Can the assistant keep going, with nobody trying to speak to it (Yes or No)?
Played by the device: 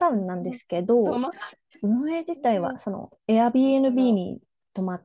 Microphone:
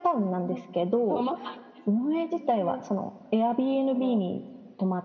Yes